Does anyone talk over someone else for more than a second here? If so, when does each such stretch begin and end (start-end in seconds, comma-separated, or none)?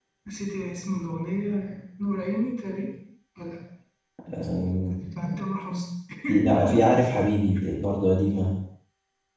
none